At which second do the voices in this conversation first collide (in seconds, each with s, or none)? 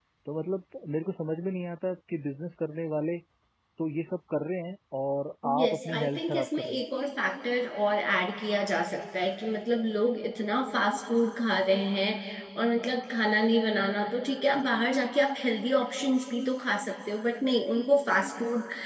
5.4 s